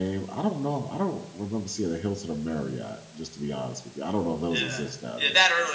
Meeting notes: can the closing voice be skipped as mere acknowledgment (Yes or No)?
No